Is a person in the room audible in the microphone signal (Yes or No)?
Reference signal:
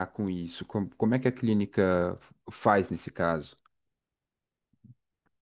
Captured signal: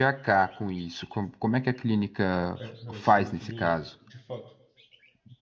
Yes